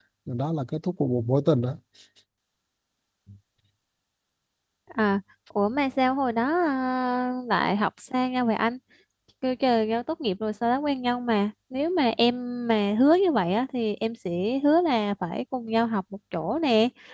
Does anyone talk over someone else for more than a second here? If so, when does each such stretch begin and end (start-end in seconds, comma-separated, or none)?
none